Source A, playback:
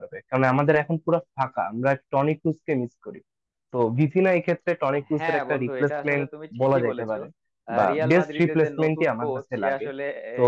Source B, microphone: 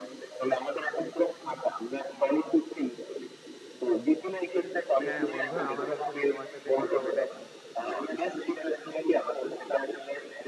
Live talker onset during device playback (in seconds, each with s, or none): 5.0 s